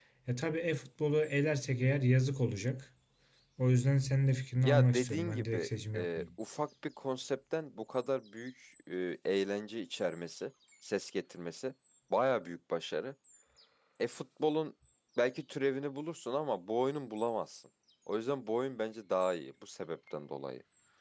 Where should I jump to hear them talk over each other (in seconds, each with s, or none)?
4.6 s